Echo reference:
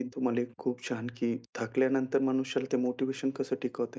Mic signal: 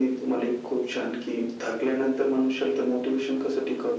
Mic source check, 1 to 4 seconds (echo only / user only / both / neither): echo only